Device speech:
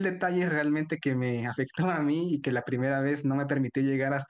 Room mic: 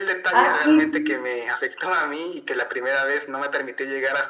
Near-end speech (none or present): present